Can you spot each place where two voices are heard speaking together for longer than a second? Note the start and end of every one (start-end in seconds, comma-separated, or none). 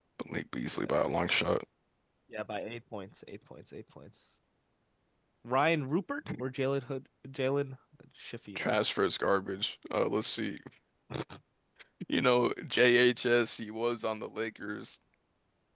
none